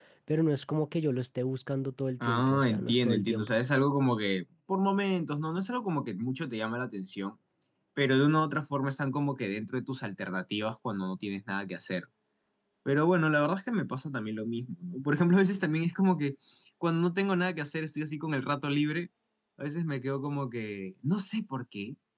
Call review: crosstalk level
present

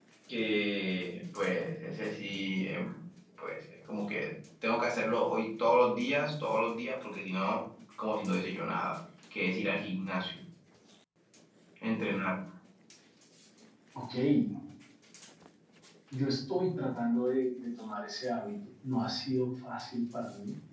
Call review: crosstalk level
none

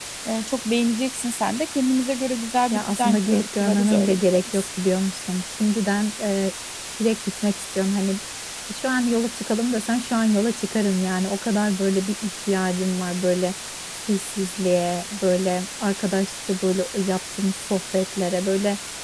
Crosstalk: present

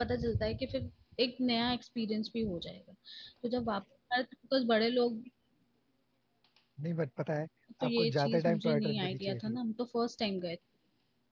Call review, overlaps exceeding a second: present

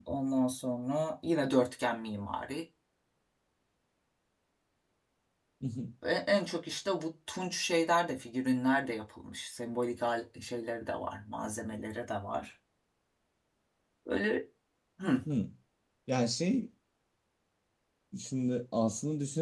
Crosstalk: none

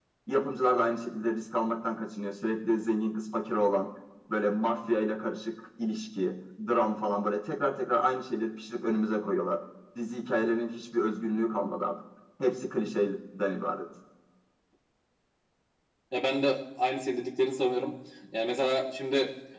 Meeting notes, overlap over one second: none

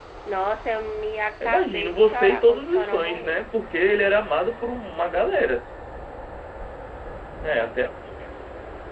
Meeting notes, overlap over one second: present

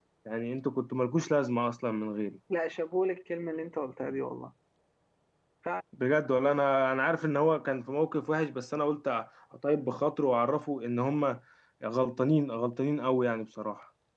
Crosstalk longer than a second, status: none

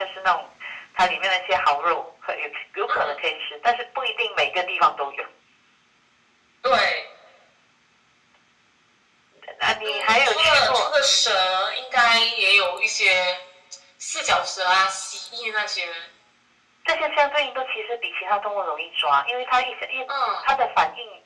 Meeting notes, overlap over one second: present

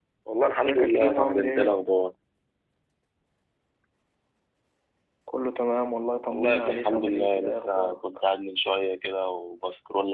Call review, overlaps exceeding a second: present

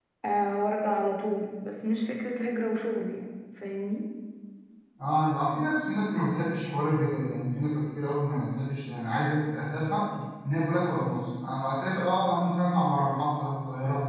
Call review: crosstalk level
none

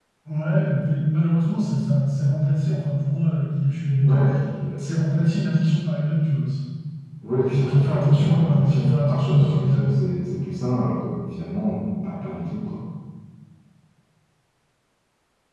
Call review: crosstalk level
present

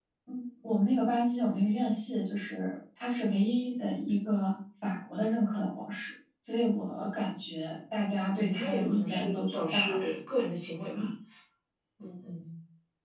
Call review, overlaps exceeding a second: present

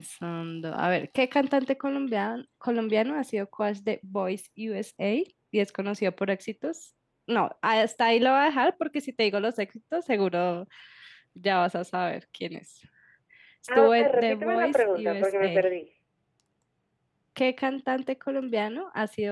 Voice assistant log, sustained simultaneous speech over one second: present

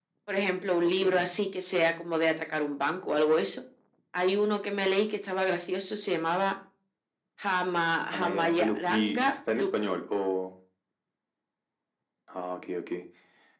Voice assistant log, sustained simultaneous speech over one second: present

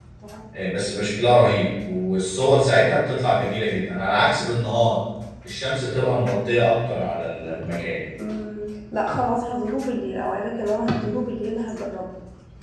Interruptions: none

